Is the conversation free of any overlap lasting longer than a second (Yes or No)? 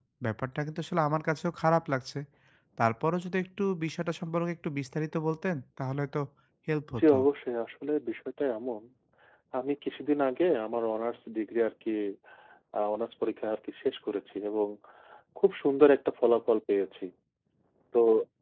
Yes